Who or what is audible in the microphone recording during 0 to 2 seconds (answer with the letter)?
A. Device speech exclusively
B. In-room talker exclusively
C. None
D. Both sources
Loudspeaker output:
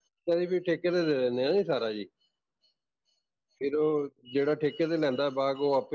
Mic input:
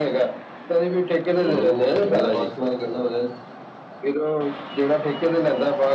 D